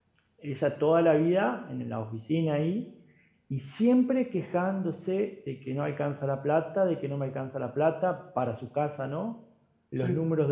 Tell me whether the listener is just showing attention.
Yes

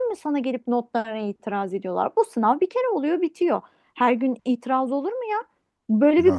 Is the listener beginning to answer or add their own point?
No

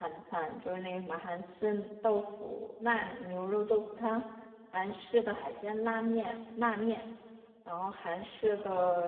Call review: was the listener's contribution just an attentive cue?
Yes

